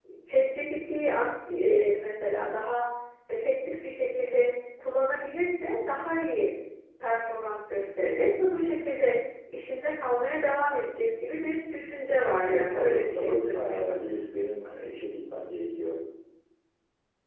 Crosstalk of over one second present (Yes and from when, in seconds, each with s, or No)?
Yes, from 12.4 s